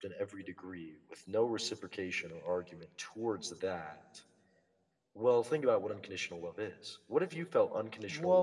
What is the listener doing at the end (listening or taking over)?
taking over